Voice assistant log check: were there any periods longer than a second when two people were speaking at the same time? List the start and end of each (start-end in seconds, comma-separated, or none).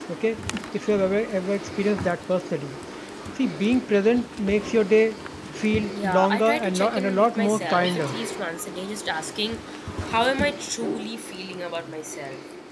6.0-8.1